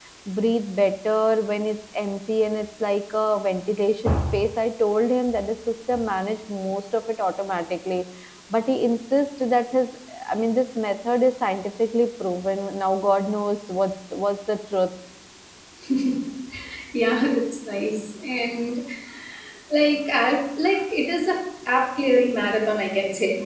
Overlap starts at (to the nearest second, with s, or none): none